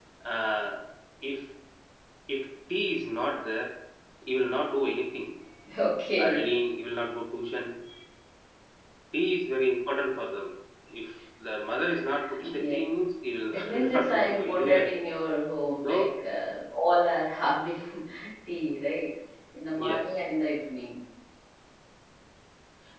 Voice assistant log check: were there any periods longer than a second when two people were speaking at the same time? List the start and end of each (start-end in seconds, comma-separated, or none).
13.5-14.9